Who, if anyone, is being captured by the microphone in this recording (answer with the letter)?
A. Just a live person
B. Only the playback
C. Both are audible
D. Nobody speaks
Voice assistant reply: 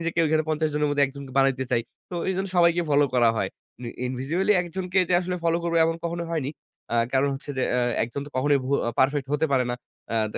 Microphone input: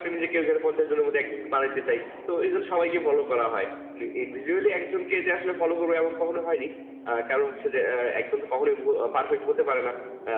B